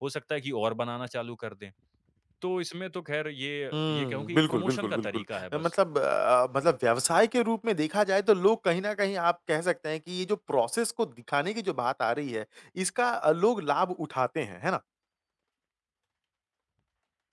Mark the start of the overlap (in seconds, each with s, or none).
3.7 s